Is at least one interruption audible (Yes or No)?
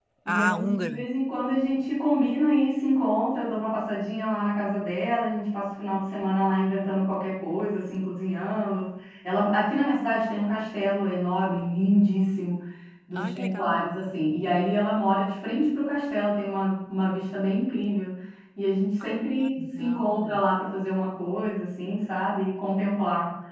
Yes